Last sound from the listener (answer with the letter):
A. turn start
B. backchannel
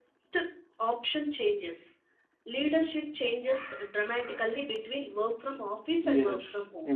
A